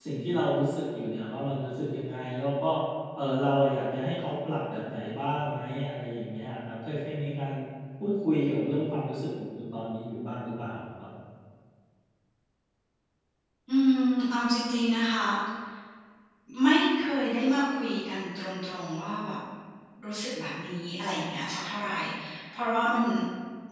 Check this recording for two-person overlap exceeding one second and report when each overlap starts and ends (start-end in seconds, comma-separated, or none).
none